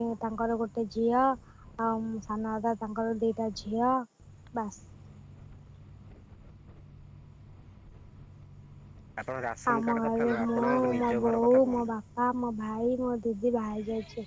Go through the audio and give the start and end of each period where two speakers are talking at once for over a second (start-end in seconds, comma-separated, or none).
9.7-11.9